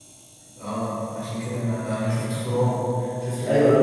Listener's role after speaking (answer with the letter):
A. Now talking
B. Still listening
A